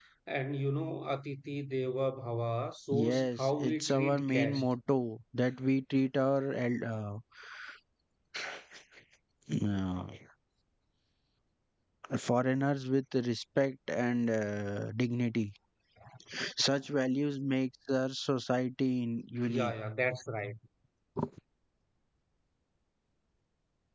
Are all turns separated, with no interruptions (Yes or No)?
No